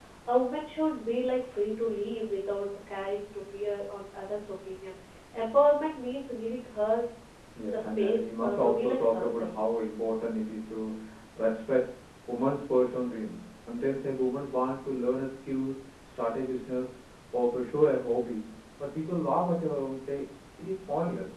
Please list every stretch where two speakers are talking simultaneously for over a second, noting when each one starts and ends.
7.7-9.5

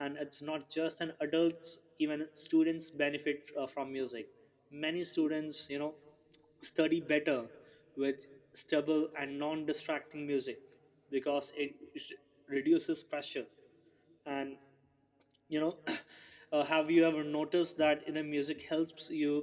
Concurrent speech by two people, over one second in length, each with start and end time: none

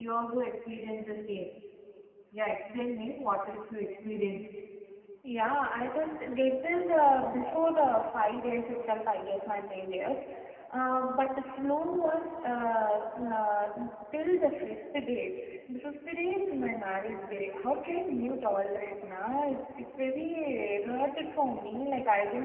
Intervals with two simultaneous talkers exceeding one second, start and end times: none

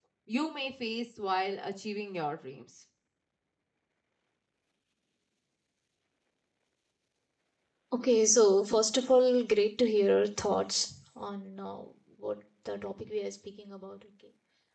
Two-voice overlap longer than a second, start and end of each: none

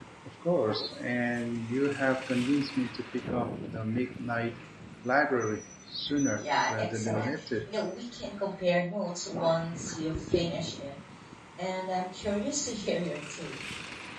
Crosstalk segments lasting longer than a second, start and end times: 6.4-7.7

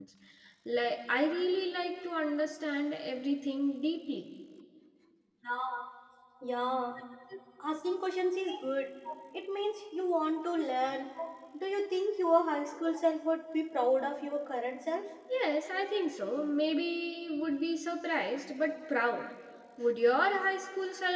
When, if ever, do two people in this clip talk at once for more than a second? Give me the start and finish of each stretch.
none

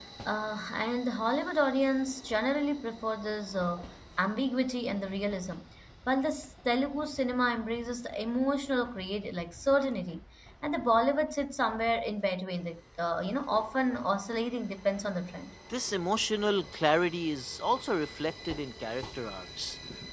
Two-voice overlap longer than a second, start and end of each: none

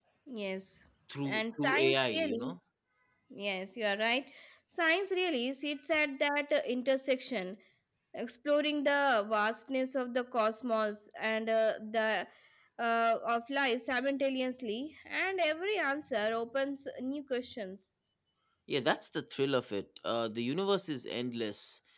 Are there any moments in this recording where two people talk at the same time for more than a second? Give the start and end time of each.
1.2-2.6

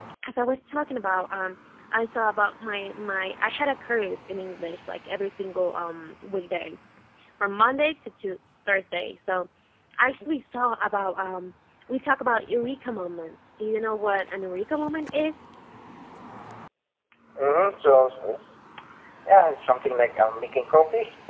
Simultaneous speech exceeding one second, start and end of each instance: none

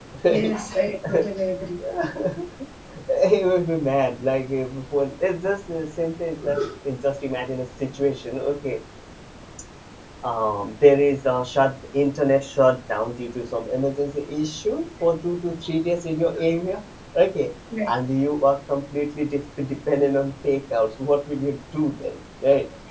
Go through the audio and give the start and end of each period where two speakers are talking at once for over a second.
none

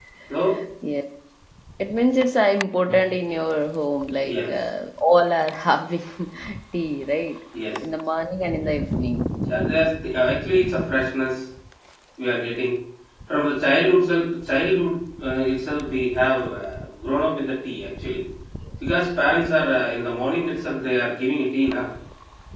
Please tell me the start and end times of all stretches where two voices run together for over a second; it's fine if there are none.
none

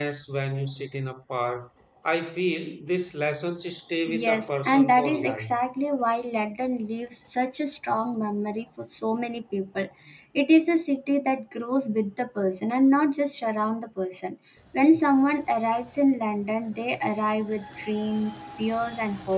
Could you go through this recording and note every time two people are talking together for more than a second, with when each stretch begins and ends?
4.1-5.4

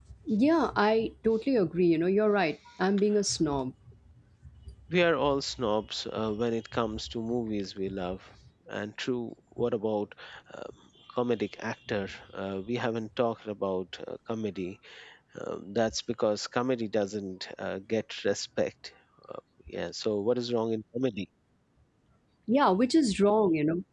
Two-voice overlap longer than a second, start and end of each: none

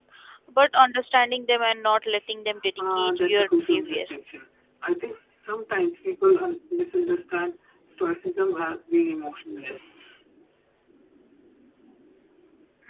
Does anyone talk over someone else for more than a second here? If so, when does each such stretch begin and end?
2.8-4.1

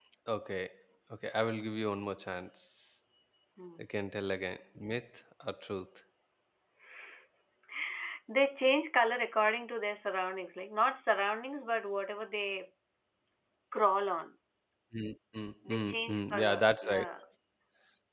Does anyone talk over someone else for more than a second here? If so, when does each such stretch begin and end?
15.7-17.0

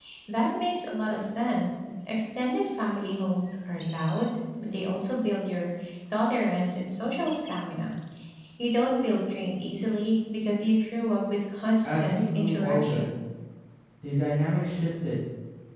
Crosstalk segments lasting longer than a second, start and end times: 11.8-13.1

